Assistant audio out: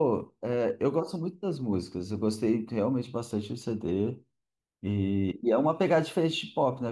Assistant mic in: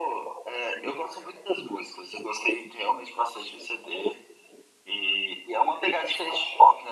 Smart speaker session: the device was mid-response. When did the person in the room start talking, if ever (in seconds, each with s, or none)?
none